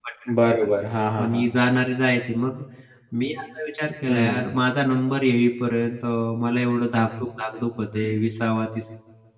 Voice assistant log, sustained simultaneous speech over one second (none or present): none